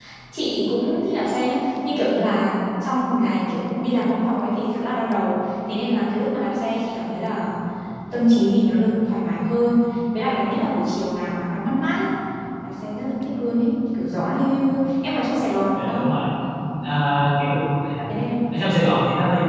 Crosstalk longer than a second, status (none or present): none